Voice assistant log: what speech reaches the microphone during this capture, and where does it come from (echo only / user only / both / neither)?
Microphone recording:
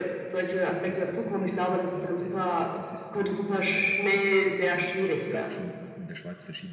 both